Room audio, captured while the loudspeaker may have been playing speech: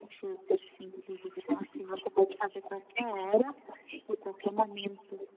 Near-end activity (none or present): none